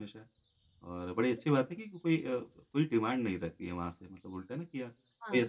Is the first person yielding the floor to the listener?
No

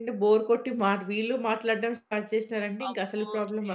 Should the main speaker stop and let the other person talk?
Yes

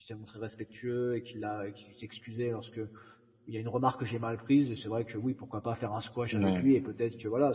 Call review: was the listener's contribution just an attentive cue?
Yes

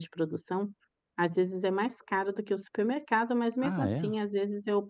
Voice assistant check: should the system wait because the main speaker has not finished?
Yes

